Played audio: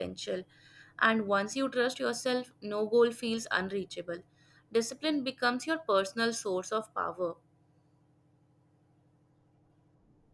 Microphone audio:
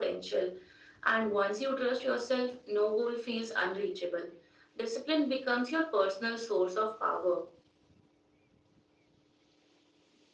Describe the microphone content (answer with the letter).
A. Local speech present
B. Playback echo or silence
B